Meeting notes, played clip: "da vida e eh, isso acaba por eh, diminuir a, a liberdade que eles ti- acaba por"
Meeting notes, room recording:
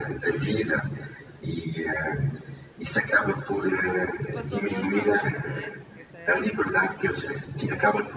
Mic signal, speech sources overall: both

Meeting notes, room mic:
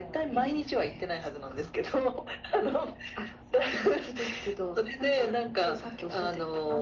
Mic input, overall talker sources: echo only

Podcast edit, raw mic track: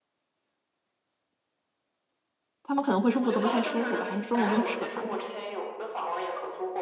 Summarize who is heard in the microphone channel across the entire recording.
both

